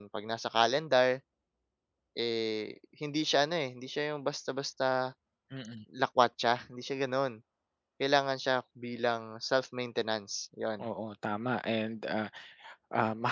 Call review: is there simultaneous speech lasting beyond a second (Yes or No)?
No